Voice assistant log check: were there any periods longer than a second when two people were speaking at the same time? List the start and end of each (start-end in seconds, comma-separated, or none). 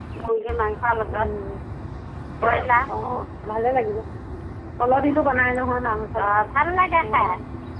none